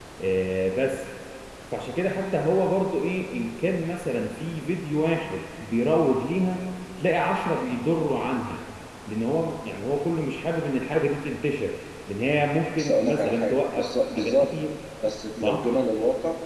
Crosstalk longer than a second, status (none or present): present